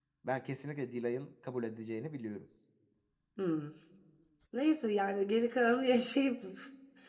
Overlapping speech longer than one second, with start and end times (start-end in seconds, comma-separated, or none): none